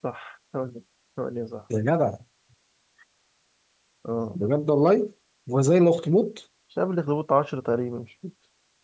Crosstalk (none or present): none